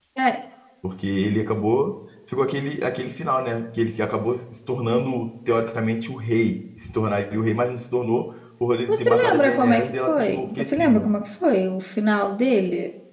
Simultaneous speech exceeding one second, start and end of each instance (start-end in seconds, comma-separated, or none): 8.9-11.1